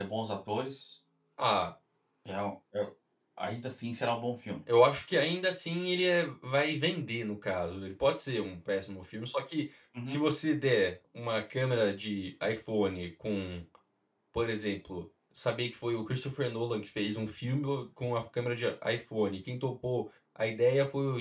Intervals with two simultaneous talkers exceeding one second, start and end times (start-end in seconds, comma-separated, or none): none